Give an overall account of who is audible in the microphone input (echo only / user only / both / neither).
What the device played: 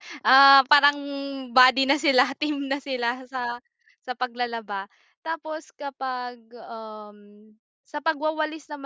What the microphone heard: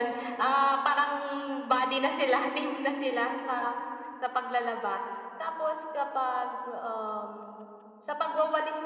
echo only